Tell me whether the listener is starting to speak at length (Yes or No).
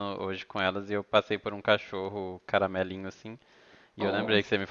No